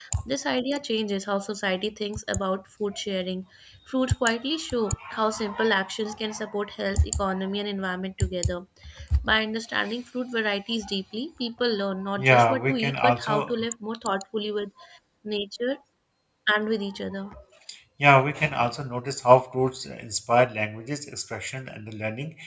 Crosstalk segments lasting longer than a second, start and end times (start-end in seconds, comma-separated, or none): 12.2-13.5